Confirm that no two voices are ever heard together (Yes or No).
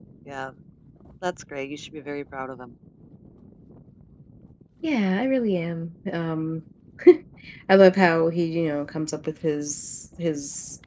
Yes